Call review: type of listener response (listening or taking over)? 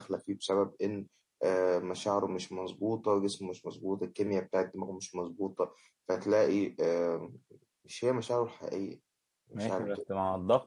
taking over